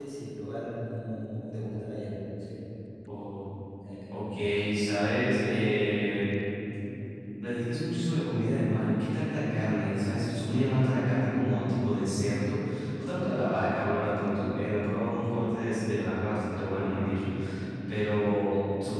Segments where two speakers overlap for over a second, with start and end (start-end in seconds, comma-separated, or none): none